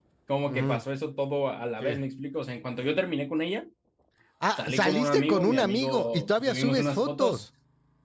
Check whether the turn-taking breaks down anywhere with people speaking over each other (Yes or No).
Yes